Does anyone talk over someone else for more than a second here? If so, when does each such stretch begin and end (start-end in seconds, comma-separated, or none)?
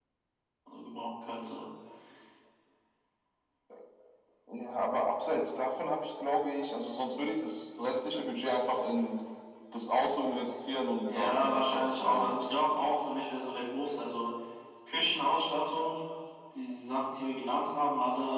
11.1-12.3